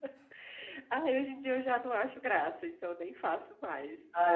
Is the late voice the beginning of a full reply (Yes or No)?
Yes